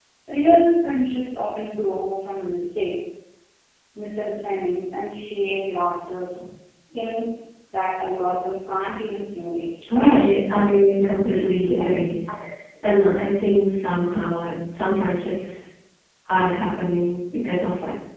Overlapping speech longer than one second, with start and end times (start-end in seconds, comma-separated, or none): none